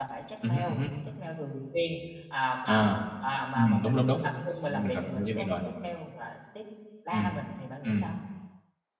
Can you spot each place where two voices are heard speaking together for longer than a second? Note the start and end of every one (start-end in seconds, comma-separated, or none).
3.5-5.6